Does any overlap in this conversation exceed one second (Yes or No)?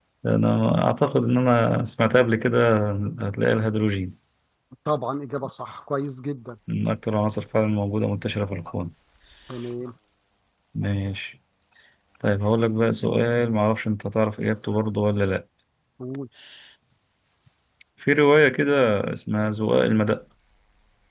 No